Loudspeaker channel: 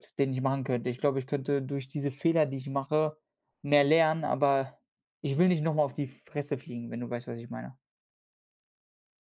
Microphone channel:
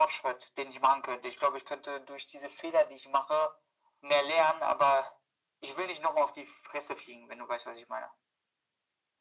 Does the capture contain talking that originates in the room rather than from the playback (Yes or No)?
No